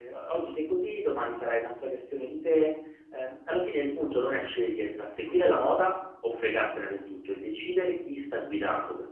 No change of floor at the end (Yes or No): Yes